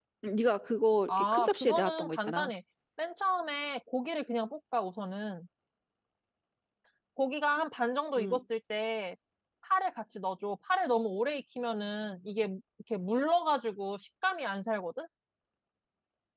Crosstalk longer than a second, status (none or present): present